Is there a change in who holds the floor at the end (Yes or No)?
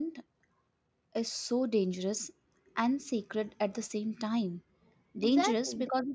No